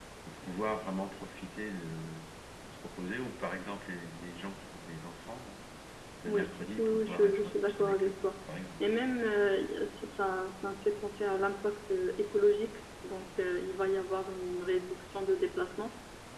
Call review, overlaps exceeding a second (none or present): present